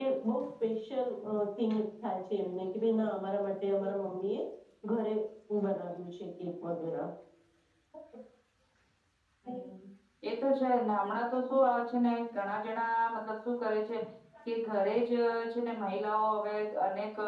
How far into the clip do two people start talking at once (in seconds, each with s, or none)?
none